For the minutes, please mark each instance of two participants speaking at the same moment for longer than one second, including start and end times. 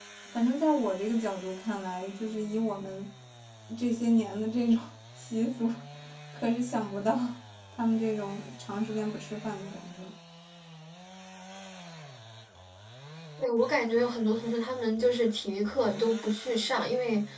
none

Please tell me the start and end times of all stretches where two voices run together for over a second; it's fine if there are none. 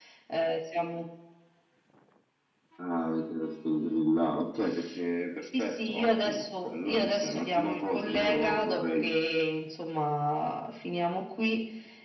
5.4-9.1

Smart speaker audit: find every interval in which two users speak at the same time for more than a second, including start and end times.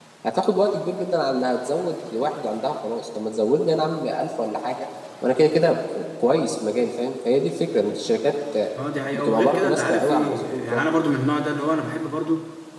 9.1-10.8

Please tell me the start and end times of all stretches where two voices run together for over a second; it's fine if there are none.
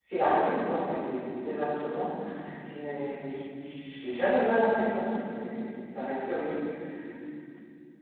none

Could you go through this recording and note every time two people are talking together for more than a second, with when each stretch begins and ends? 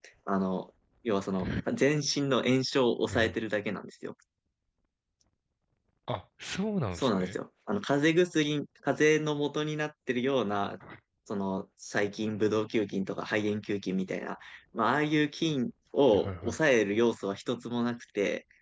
none

